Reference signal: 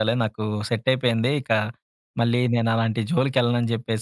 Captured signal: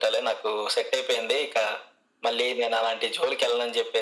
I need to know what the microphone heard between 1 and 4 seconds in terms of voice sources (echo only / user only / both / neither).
echo only